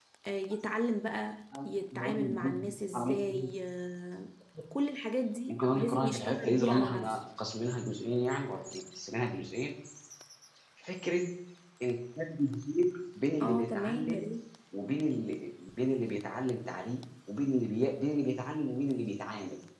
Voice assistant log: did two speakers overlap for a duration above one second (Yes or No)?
Yes